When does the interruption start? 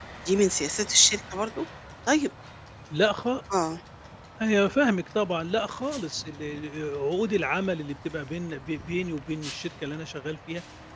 none

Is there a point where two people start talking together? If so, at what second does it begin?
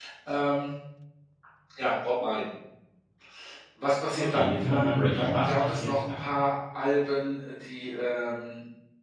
4.2 s

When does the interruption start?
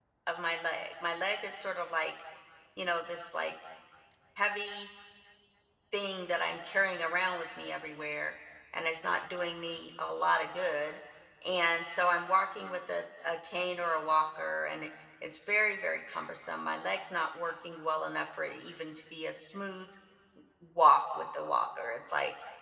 none

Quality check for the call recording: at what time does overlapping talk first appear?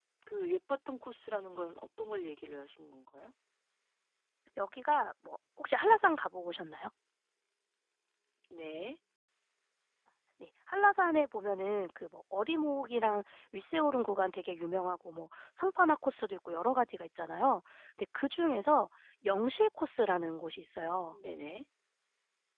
none

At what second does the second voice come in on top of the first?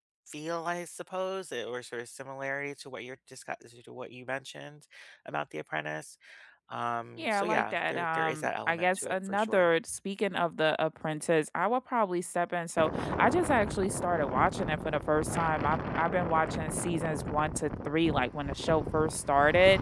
7.2 s

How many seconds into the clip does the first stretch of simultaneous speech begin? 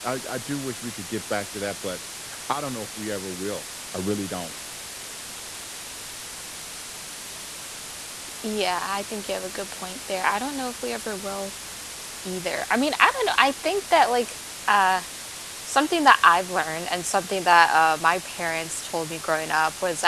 none

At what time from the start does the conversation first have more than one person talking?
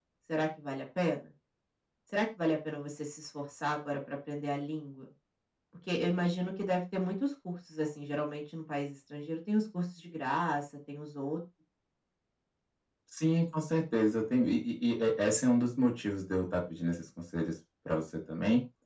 none

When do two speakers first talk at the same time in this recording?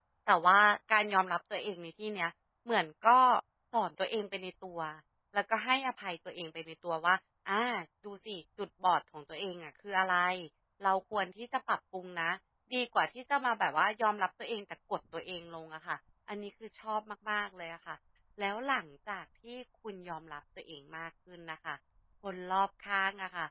none

